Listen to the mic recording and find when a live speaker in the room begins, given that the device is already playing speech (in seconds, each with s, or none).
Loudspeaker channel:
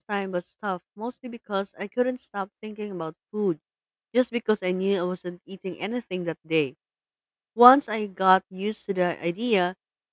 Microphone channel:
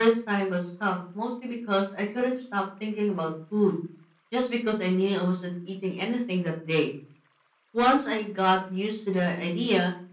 none